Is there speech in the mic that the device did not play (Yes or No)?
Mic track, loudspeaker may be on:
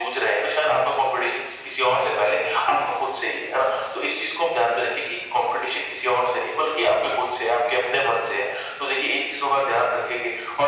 No